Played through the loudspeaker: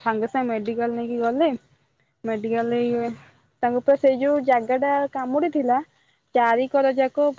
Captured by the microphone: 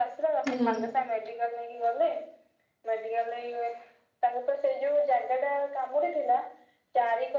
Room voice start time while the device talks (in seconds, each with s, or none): 0.5 s